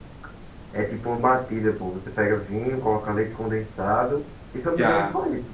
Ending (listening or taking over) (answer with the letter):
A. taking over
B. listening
A